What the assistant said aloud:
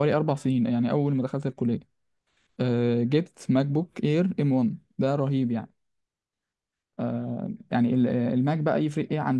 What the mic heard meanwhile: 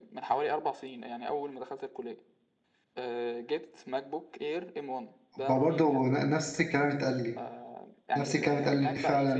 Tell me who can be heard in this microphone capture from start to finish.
both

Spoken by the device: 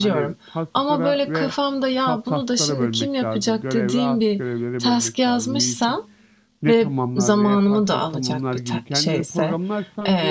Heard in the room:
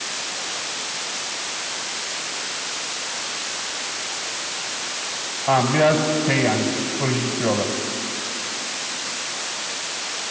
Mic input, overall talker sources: user only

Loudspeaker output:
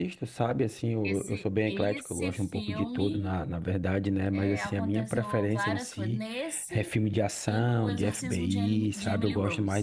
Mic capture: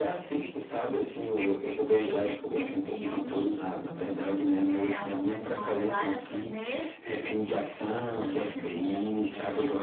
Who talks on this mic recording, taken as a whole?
echo only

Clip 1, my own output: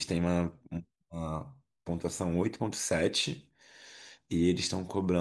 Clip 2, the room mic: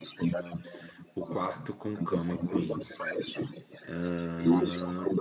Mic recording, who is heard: both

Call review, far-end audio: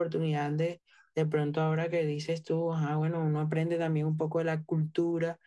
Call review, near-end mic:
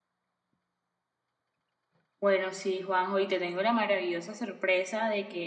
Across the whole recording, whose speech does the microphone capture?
user only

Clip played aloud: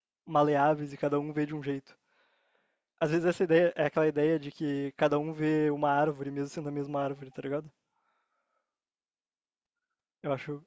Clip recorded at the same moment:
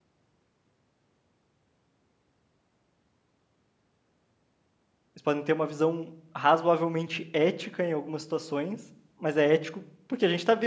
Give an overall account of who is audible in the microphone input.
user only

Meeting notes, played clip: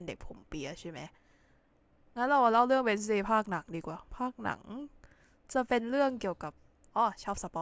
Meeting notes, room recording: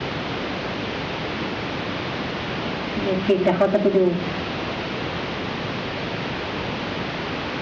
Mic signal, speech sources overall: user only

